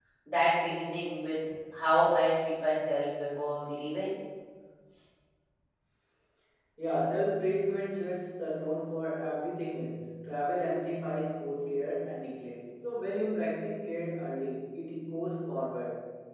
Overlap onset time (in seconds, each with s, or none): none